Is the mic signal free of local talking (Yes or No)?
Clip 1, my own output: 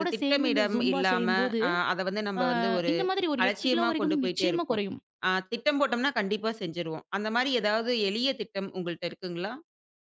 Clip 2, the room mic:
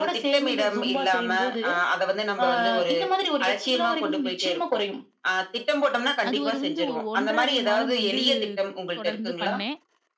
No